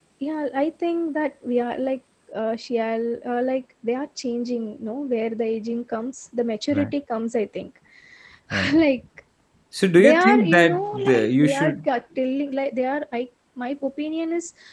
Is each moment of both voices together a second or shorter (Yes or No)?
No